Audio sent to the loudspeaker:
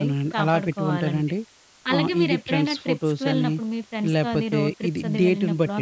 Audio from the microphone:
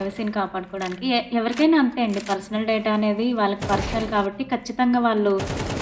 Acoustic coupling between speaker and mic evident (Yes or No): No